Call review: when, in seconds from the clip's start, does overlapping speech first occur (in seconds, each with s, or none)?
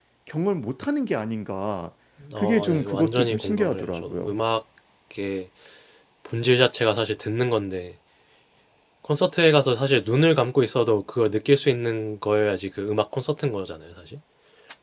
2.4 s